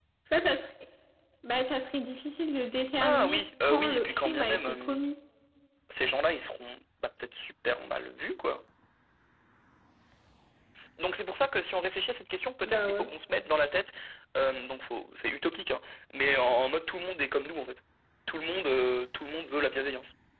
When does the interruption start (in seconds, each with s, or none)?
3.0 s